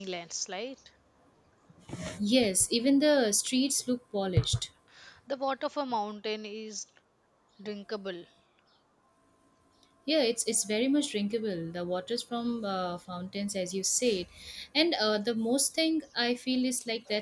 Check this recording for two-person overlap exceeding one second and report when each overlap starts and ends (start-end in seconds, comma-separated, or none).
none